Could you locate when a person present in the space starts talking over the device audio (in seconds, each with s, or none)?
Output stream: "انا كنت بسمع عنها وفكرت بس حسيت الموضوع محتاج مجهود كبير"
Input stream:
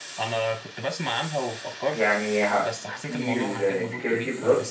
1.9 s